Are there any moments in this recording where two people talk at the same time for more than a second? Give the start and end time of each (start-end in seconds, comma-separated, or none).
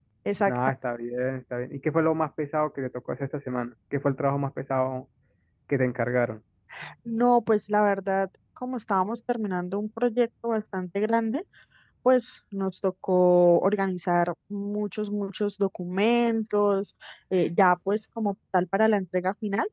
none